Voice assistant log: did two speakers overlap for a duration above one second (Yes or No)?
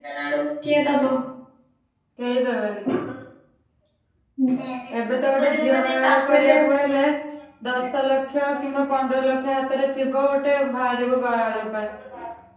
Yes